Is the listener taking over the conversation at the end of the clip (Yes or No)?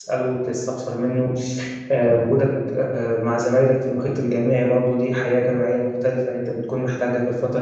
Yes